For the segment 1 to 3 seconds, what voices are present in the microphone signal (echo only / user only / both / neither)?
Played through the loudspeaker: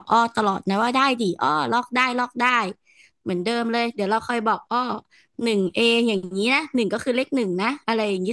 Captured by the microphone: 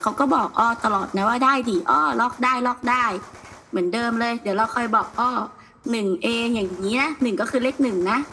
echo only